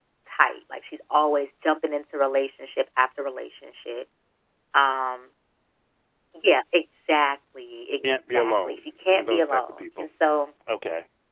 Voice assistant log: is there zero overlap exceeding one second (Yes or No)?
No